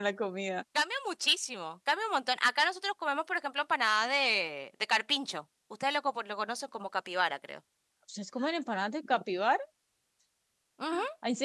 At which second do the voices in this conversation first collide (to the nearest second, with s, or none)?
none